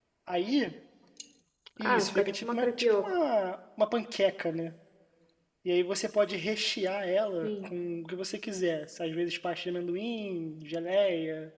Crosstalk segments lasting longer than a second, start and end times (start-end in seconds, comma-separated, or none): 1.8-3.2